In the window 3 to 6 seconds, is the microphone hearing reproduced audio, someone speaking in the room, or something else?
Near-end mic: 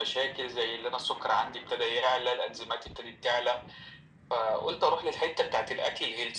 echo only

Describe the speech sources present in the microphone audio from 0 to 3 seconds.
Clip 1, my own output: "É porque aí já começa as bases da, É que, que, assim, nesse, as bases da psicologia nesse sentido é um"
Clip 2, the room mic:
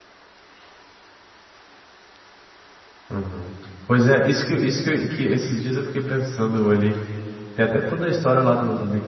neither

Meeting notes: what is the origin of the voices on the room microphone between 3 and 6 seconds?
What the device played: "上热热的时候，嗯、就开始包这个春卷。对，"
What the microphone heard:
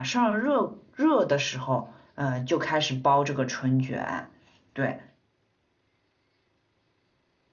echo only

